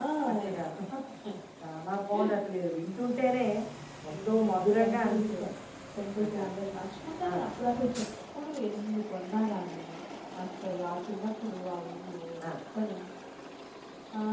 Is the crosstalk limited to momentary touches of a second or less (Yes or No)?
No